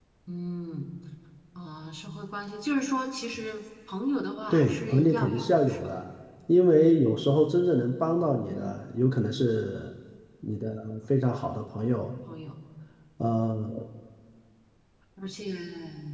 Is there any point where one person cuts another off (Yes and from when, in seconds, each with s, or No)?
Yes, from 4.5 s